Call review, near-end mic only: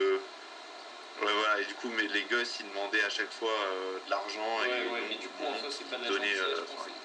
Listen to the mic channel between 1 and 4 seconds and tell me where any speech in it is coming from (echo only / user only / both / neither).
echo only